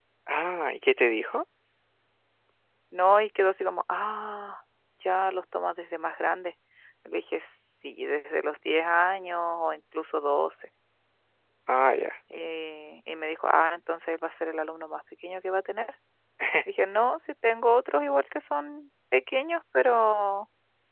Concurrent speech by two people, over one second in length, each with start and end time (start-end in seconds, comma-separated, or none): none